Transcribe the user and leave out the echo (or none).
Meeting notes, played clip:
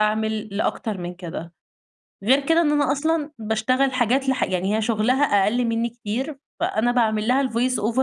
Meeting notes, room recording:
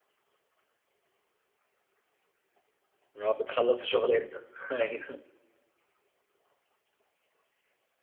اللي هو بتخلّصي شغل إمتى؟ أيوه.